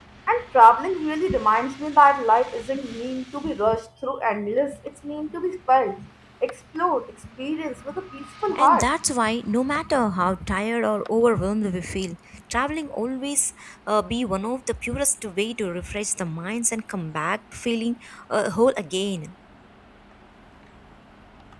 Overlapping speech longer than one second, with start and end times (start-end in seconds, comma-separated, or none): none